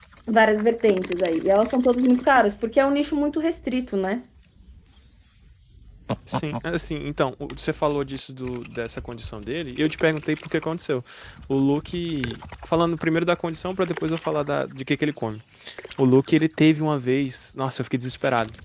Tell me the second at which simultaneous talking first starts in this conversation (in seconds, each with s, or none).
none